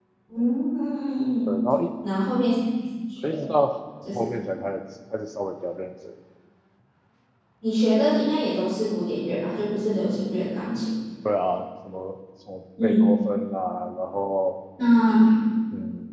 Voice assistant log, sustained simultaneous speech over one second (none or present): none